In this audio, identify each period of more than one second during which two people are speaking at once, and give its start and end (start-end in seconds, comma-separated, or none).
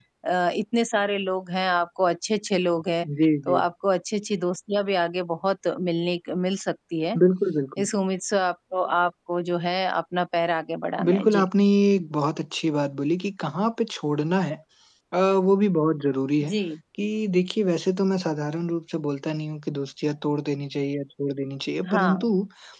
none